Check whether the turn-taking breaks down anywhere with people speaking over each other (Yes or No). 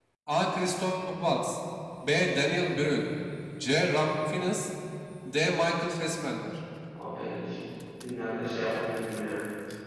No